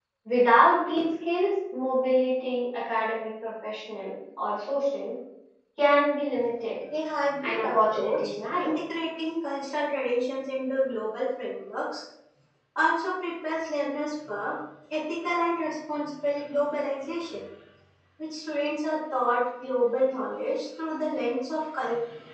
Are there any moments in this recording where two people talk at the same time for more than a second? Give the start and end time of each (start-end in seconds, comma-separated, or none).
7.4-8.7